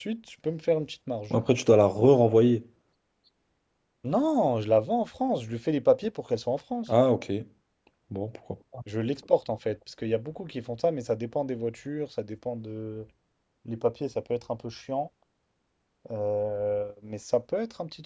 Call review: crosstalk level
none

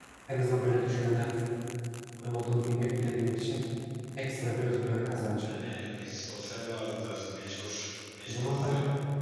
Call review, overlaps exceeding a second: none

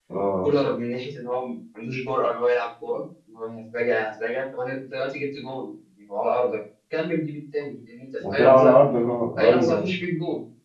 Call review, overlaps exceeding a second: none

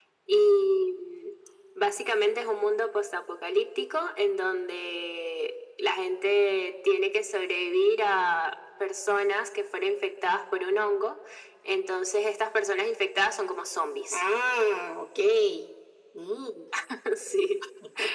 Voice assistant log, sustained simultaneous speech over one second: none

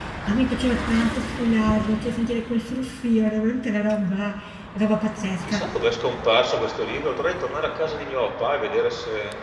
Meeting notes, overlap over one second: none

